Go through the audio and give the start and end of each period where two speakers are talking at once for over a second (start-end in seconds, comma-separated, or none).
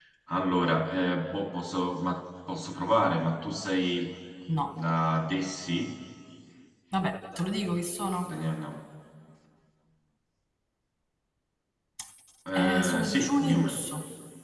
12.5-13.8